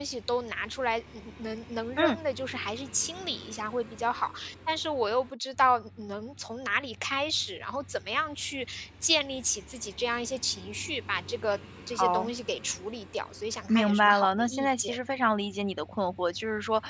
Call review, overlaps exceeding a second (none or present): present